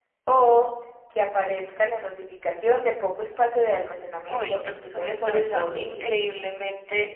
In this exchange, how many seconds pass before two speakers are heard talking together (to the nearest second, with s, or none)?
4 s